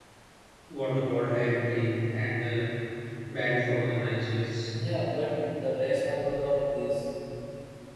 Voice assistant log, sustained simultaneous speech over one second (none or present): none